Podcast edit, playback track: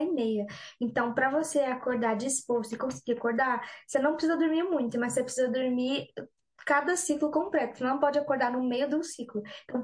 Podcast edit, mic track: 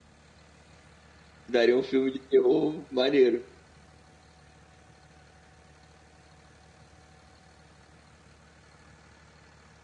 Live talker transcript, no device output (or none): daria um filme de terror maneiro.